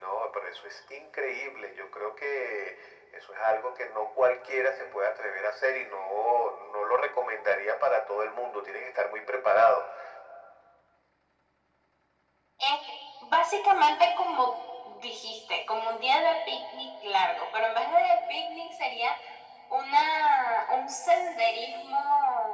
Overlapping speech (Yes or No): No